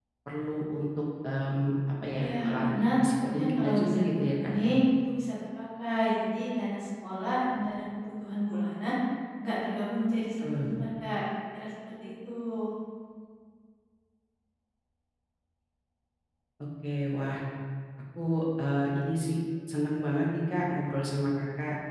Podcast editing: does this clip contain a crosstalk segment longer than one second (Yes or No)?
Yes